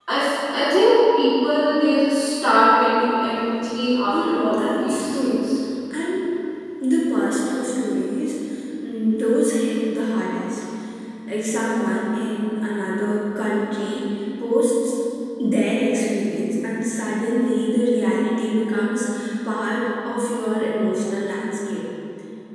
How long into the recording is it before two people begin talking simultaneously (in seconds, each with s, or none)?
4.1 s